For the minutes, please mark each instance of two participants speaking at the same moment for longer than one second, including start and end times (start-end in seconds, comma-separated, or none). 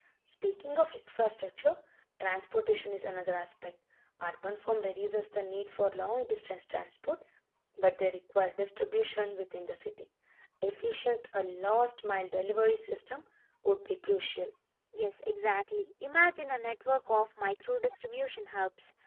none